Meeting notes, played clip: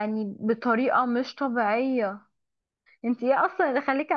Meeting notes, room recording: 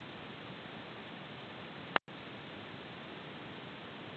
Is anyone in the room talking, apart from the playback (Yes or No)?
No